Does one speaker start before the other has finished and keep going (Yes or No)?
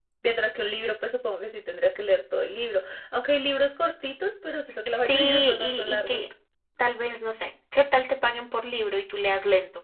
Yes